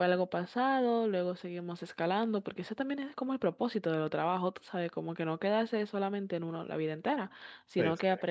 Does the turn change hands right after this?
No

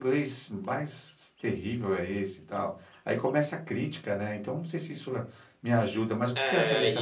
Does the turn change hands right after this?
Yes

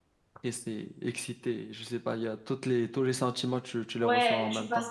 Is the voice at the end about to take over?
Yes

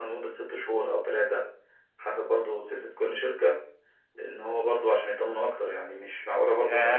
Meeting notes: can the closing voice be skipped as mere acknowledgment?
No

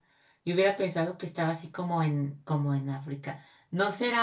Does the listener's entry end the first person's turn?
No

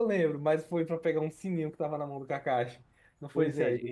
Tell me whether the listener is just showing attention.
No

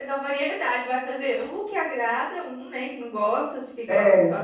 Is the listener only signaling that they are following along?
Yes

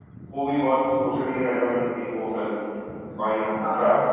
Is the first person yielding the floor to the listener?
No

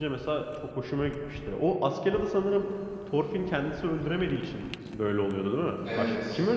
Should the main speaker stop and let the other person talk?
Yes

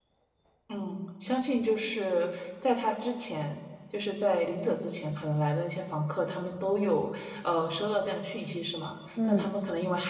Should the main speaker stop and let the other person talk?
No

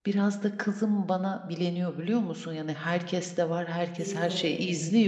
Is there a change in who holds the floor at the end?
No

